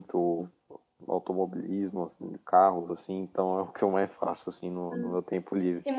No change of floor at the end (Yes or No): No